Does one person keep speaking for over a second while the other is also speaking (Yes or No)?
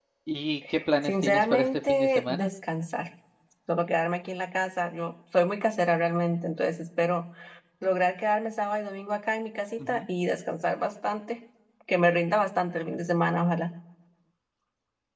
Yes